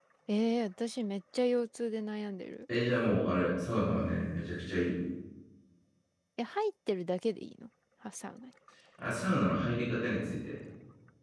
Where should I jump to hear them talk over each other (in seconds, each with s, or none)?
none